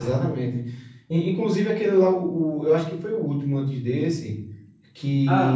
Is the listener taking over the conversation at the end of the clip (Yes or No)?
No